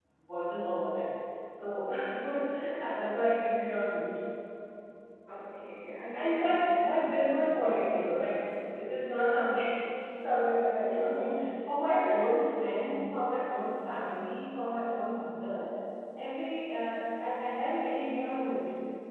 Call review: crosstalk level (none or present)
present